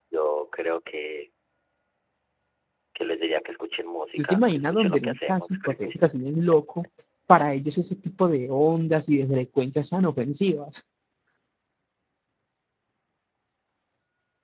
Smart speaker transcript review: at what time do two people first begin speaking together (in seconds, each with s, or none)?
4.1 s